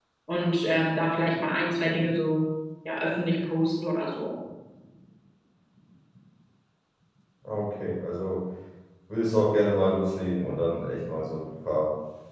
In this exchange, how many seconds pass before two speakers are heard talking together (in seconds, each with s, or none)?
none